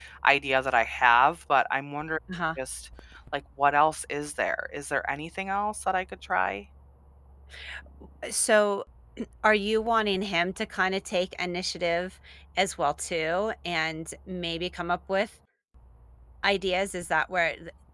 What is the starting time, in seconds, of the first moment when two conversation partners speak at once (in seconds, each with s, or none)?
none